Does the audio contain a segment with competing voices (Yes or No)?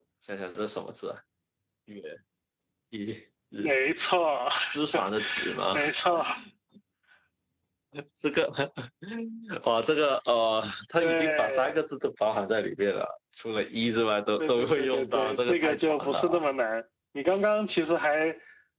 Yes